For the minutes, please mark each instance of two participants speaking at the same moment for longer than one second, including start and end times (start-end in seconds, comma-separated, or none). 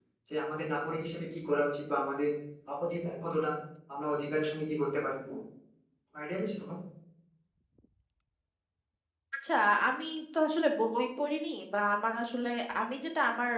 none